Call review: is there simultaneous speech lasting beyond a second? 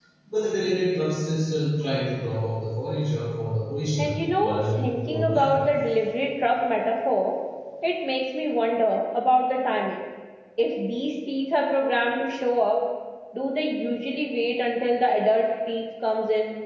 Yes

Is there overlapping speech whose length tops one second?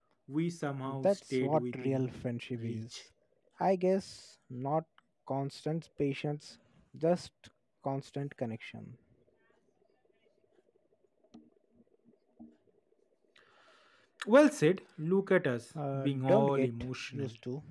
Yes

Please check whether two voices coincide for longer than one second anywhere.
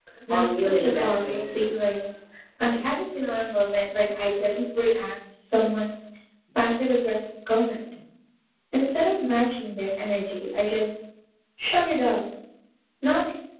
Yes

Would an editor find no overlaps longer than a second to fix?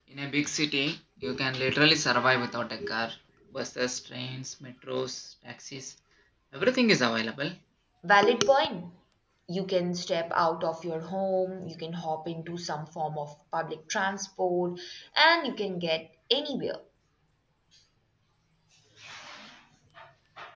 Yes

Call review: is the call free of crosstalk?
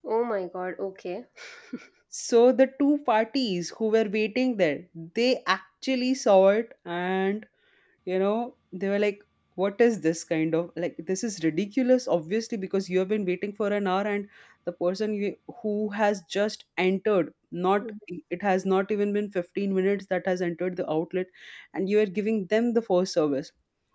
Yes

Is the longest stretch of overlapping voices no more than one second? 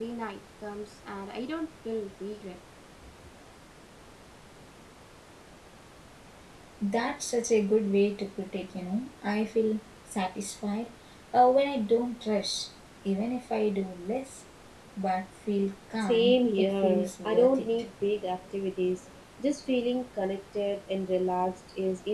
No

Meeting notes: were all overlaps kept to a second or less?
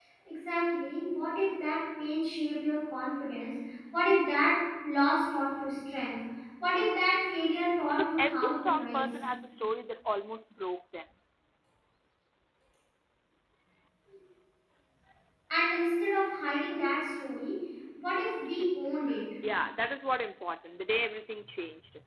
No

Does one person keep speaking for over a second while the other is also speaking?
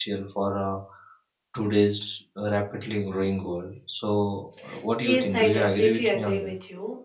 Yes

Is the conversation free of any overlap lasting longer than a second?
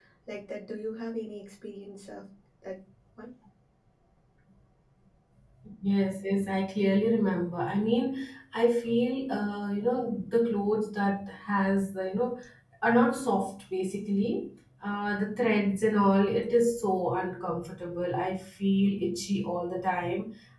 Yes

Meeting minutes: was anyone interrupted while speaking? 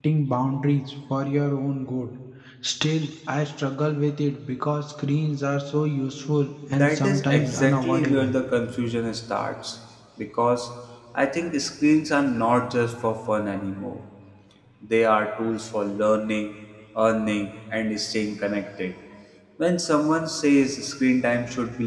Yes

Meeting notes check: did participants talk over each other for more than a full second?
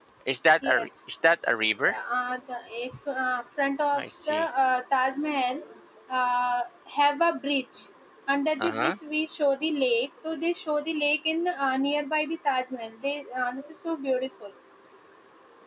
No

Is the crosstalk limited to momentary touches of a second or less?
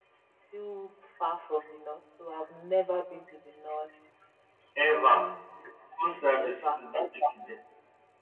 Yes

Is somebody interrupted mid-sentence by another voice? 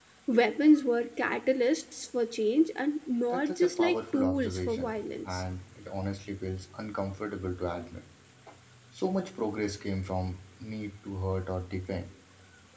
Yes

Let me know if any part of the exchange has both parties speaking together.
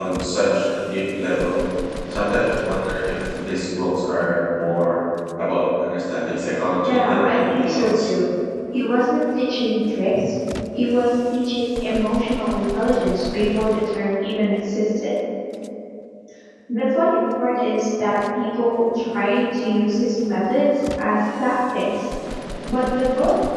Yes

